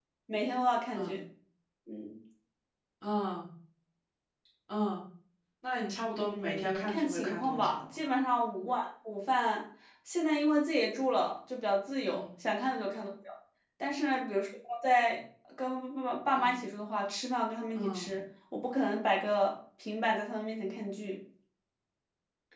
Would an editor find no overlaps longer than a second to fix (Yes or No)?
No